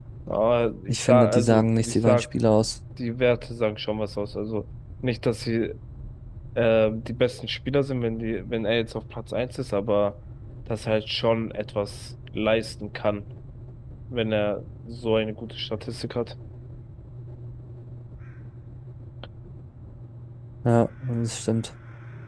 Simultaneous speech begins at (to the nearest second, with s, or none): 1 s